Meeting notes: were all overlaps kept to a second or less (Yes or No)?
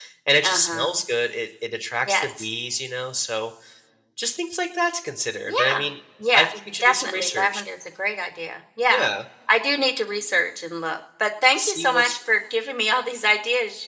No